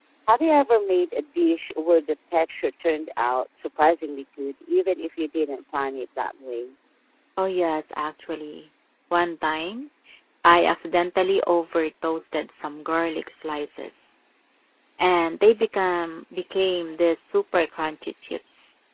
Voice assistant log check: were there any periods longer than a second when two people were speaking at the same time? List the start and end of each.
none

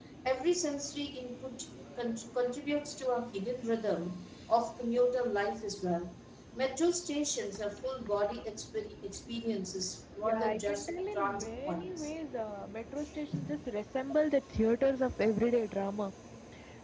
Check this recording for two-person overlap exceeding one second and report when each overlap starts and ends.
10.2-12.1

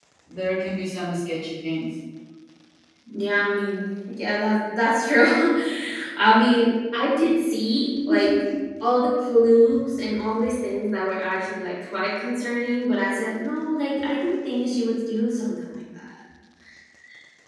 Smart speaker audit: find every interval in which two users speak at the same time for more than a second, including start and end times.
none

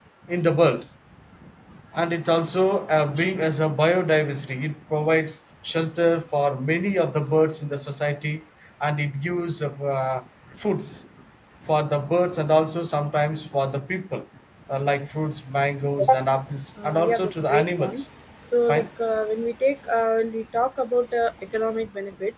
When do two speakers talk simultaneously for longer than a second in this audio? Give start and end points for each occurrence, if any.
16.8-18.0

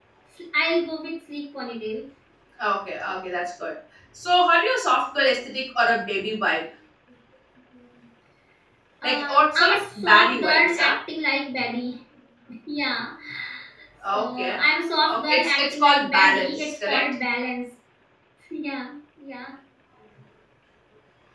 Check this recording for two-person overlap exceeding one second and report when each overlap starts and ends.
9.0-10.9, 15.1-17.1

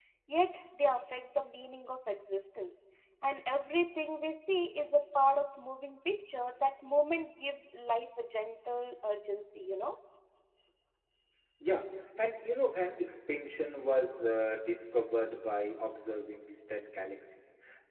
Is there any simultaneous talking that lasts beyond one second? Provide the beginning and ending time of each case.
none

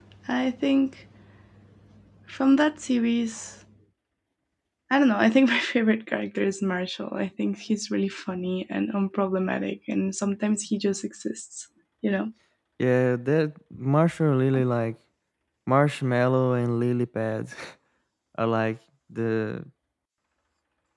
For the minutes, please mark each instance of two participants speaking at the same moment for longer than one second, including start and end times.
none

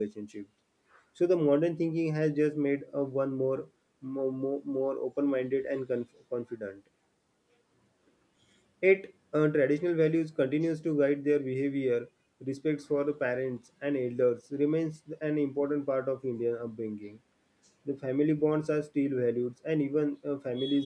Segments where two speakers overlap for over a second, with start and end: none

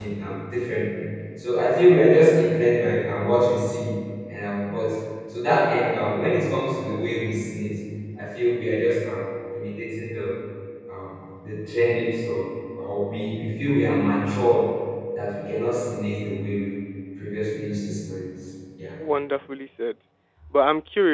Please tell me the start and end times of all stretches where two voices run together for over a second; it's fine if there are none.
none

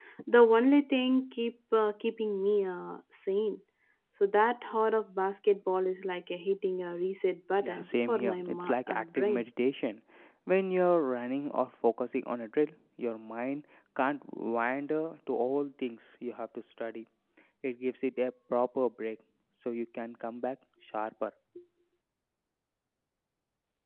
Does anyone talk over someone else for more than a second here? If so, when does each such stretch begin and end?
7.6-9.4

